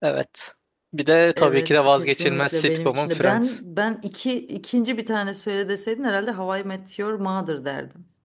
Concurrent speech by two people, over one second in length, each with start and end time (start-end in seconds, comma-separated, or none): 1.4-3.6